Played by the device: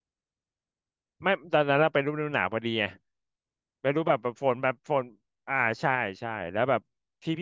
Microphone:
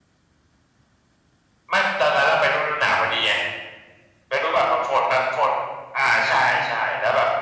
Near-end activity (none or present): none